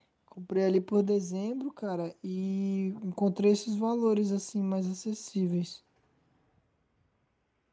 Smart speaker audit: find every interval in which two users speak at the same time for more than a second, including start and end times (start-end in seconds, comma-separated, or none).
none